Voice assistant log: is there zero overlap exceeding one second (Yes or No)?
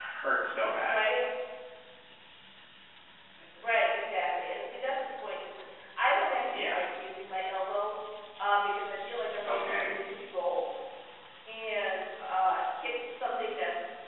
Yes